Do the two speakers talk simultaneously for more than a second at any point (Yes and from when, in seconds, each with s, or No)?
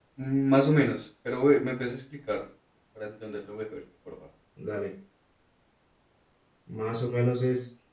No